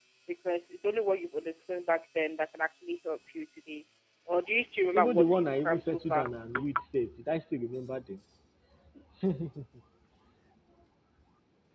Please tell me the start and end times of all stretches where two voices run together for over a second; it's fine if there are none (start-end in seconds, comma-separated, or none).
4.9-6.3